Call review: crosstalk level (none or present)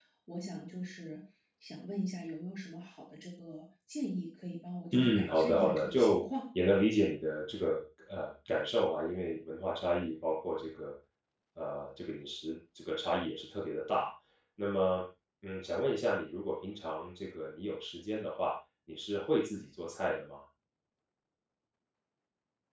present